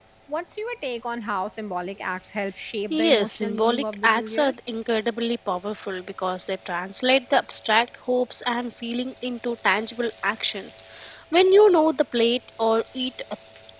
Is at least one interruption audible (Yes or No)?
Yes